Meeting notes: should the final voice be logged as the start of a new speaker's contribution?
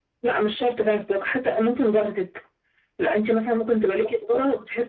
No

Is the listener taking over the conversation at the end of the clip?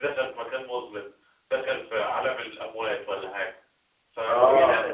No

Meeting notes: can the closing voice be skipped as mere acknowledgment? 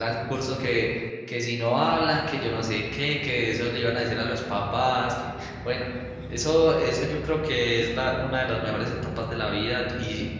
Yes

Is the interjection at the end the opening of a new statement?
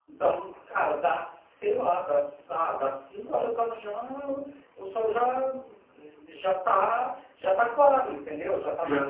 Yes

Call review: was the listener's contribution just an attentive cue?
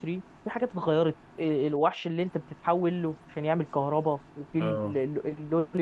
Yes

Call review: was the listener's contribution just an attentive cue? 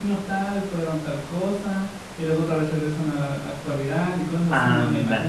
No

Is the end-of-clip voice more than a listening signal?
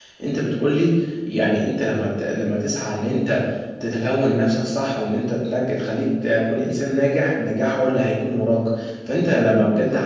No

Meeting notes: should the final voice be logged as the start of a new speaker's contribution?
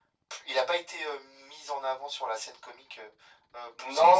Yes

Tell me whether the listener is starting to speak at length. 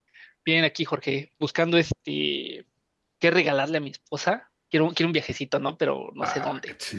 Yes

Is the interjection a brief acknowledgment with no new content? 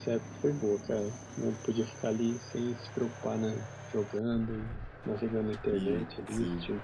No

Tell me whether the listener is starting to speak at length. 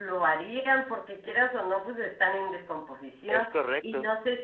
No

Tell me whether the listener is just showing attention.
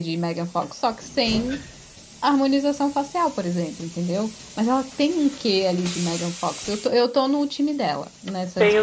No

